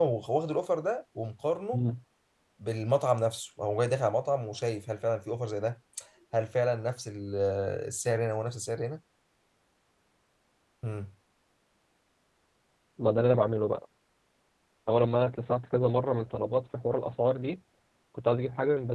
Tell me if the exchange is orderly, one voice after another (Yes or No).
Yes